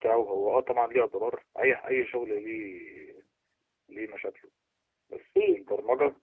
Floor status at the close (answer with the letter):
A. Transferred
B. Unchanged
B